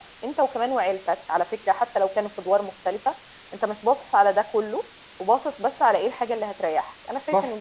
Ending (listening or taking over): taking over